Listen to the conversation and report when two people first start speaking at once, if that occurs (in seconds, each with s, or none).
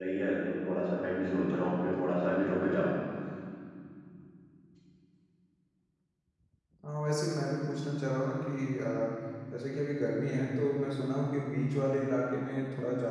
none